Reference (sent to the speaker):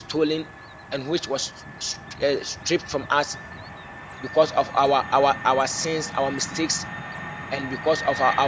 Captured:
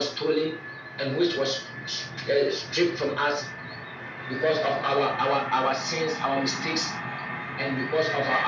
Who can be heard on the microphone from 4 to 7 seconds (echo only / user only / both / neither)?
echo only